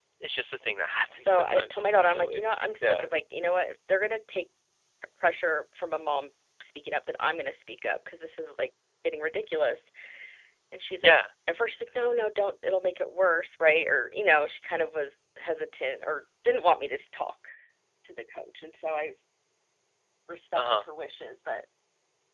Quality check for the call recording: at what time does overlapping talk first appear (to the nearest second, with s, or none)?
1 s